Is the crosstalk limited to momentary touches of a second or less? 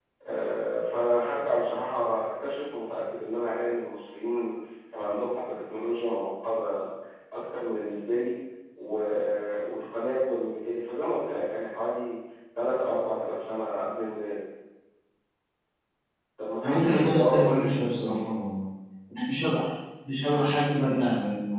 No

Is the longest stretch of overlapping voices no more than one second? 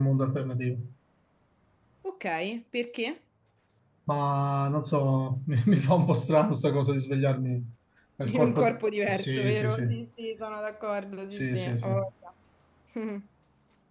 No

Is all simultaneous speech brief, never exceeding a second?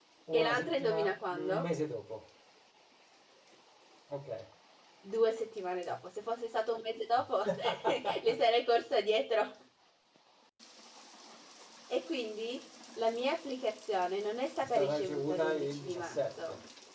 No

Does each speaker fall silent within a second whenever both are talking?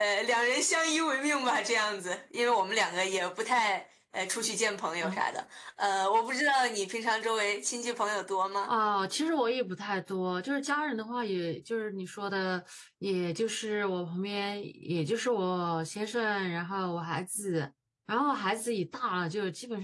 Yes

